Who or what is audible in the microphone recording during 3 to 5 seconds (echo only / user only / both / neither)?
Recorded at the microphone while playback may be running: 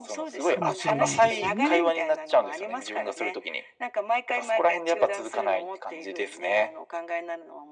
echo only